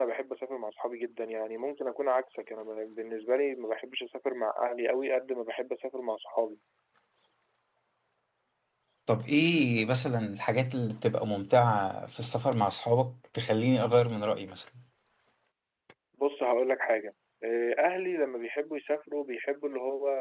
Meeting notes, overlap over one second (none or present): none